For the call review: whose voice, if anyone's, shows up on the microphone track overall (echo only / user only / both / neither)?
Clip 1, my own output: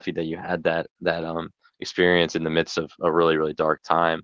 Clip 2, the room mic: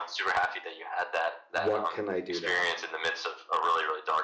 both